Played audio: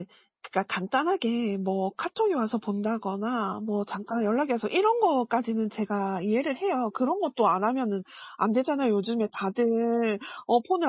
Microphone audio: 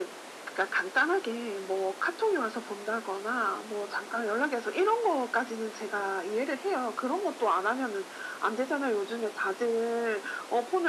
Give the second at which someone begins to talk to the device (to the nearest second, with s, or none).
none